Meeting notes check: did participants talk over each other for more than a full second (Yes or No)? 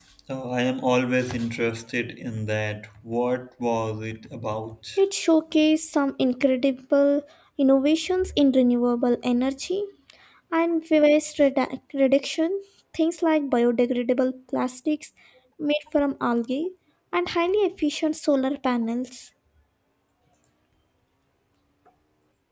No